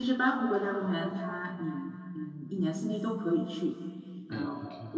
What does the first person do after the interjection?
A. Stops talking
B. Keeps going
B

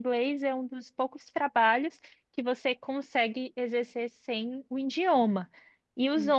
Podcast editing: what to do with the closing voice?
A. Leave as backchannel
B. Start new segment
A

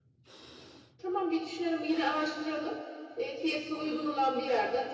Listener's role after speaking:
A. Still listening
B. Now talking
A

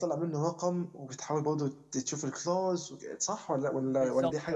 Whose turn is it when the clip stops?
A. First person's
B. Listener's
B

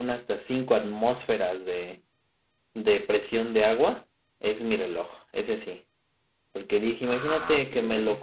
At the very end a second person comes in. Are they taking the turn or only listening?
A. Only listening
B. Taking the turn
A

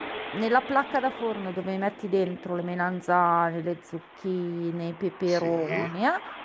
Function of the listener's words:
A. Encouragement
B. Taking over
A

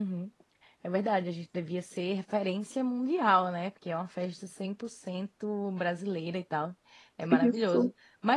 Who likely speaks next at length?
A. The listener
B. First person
B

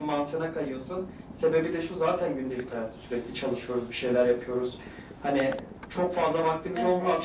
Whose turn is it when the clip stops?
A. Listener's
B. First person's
B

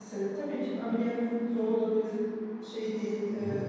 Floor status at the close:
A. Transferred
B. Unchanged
B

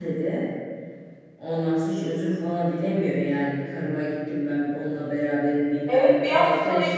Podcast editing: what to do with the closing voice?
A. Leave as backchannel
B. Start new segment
B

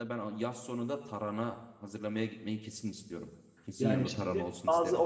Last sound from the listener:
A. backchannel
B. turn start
B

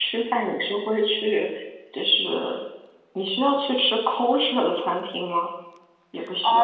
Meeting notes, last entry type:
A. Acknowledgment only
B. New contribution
B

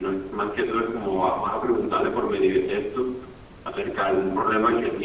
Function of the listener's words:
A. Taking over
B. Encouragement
B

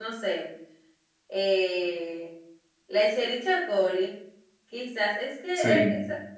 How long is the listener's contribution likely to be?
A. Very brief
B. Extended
A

